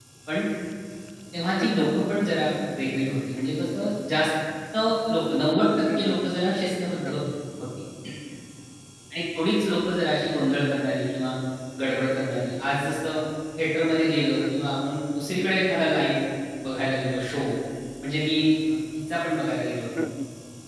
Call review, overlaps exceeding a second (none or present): none